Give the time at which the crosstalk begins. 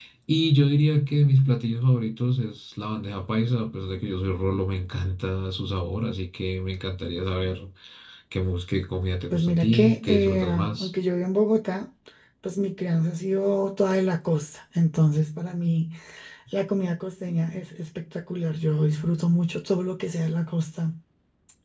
9 s

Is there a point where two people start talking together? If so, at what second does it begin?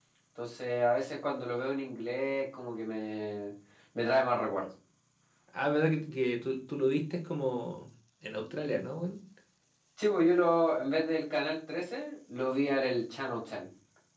none

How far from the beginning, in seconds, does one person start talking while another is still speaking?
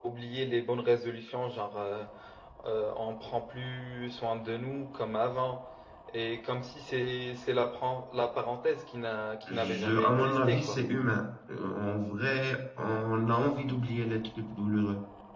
9 s

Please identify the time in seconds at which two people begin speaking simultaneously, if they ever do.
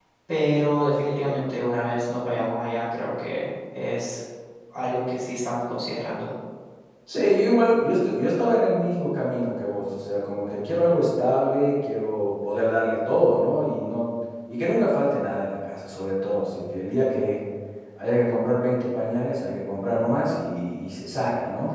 none

